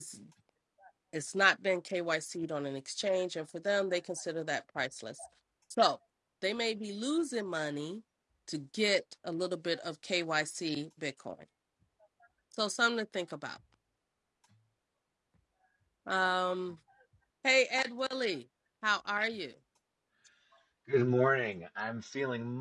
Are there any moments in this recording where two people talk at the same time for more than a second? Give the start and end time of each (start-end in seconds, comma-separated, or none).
none